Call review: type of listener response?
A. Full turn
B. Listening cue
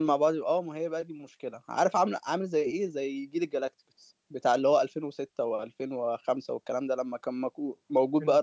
A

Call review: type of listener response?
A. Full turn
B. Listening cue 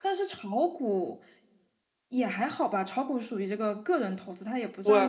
A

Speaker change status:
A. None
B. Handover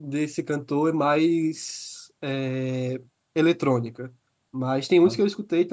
A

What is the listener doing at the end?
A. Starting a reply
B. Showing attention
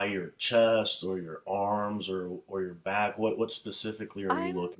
A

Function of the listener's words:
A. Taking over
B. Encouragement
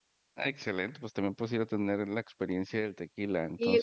A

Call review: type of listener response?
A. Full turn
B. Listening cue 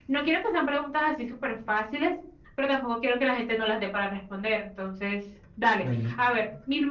B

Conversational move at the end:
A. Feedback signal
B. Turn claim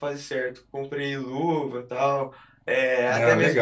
A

